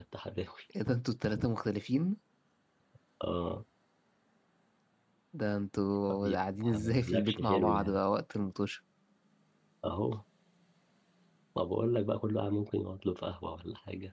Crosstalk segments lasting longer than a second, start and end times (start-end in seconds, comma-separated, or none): 6.1-8.0